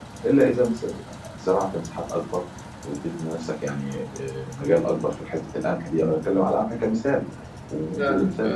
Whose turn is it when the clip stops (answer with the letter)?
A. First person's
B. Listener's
A